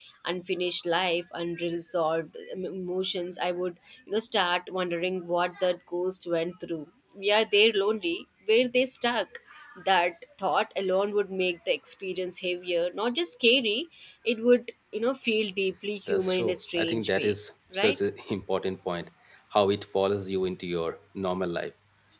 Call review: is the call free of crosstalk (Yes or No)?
No